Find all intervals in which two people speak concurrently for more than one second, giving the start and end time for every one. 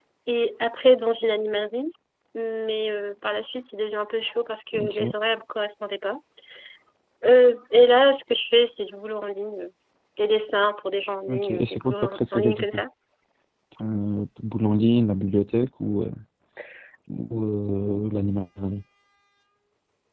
11.3-12.8

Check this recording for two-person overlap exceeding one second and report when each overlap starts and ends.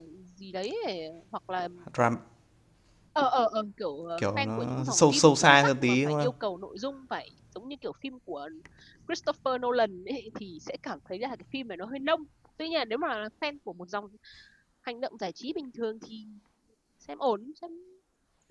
4.2-6.3

